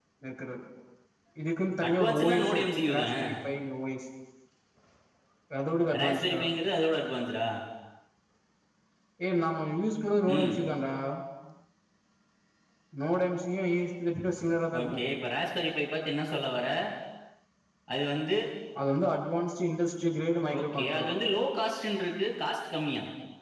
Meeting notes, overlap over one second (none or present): present